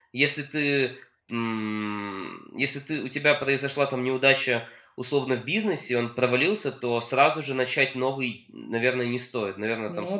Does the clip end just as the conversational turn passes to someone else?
No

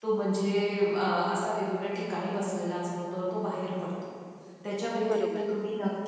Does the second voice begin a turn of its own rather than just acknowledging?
No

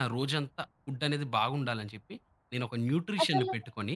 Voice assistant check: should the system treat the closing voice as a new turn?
No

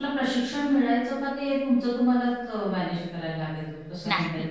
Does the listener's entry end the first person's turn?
Yes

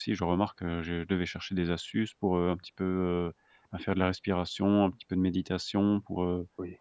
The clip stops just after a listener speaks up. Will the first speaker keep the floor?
Yes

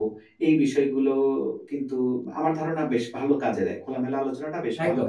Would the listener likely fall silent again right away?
No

